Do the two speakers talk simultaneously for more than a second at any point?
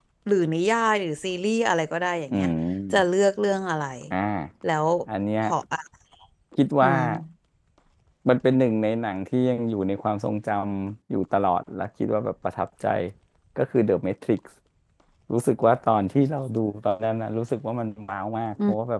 No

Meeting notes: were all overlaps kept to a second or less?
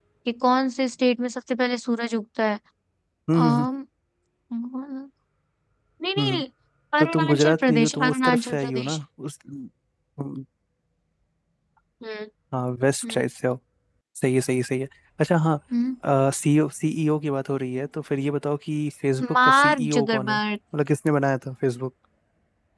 No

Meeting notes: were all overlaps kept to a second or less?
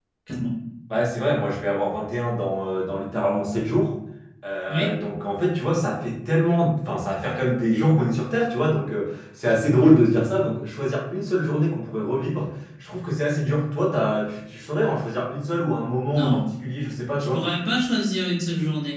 Yes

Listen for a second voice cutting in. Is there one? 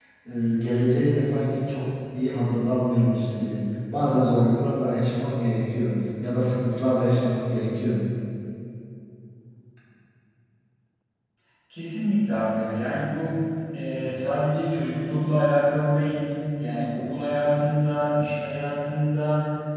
No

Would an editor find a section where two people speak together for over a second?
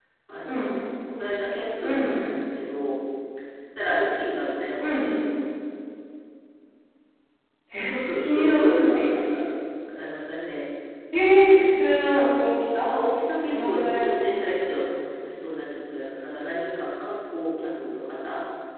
Yes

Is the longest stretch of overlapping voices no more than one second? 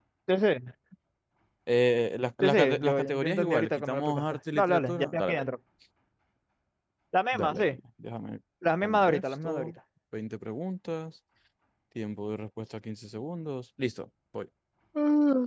No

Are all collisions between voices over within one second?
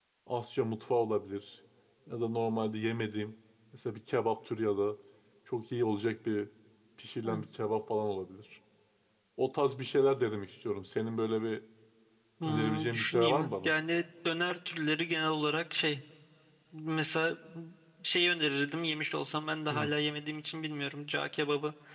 No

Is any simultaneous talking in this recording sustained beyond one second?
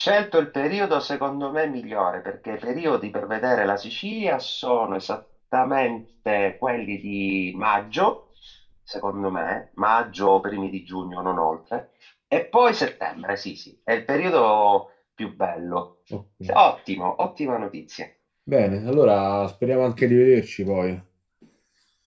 No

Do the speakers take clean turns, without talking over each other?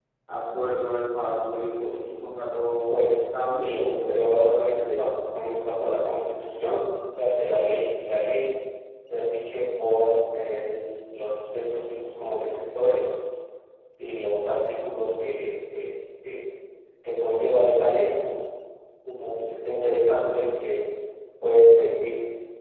No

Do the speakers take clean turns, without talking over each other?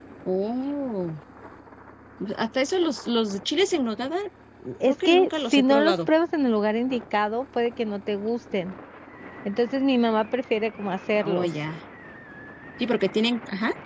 No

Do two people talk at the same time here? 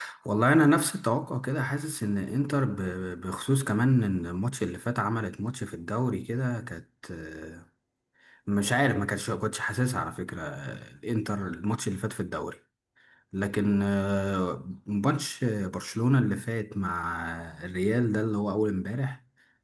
No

